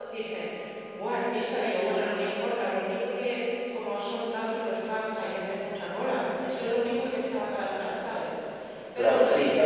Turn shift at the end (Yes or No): Yes